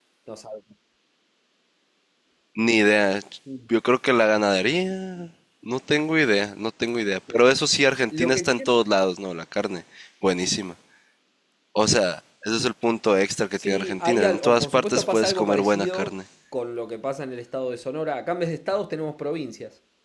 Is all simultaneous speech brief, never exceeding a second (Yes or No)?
No